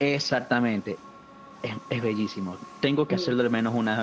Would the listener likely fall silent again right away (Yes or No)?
Yes